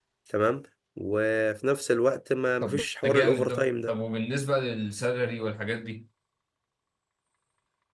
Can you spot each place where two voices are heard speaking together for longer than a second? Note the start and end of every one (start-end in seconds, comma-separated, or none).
2.6-3.9